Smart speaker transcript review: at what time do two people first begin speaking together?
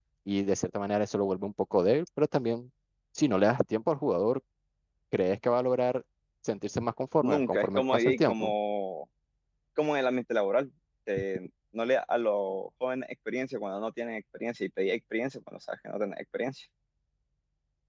7.2 s

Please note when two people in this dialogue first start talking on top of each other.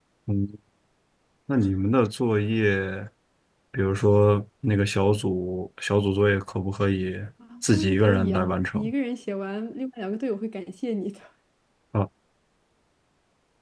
7.7 s

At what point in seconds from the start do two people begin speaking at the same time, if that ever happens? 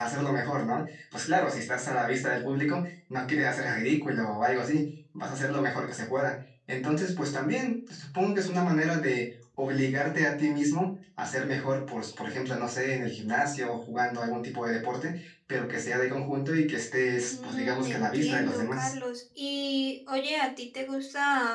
17.3 s

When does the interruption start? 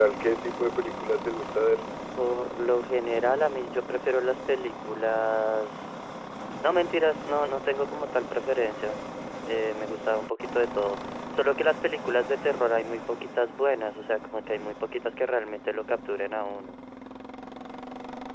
none

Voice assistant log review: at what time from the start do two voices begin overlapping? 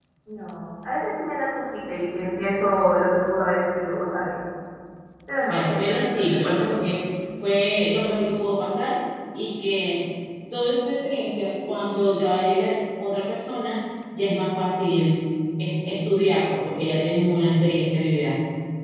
5.5 s

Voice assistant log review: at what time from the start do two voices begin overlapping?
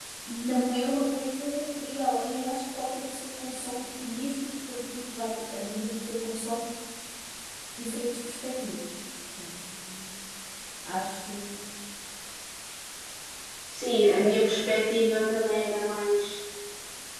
none

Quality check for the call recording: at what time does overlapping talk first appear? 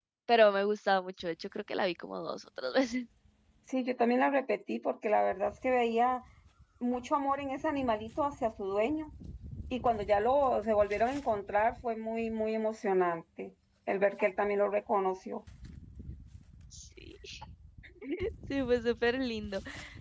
none

